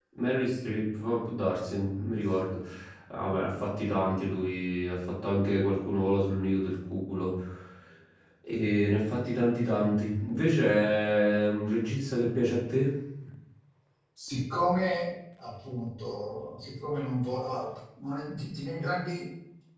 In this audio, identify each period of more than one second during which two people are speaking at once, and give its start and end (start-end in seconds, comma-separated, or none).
none